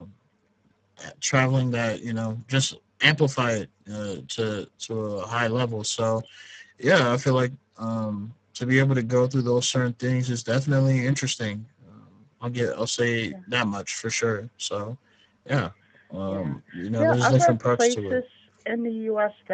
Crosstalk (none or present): present